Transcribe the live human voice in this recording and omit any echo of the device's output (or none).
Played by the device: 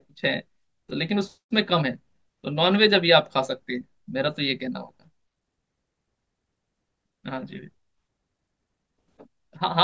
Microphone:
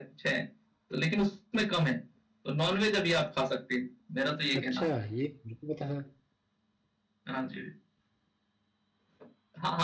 अच्छा ये मेरे को पता था